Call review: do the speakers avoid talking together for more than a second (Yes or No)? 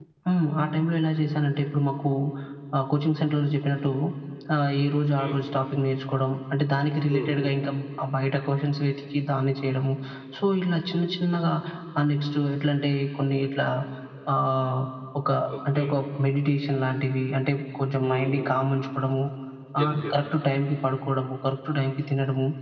Yes